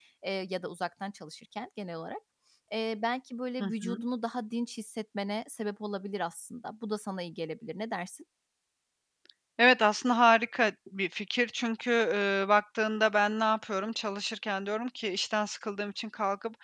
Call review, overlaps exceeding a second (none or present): none